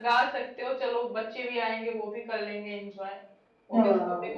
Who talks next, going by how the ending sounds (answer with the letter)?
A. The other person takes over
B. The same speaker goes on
B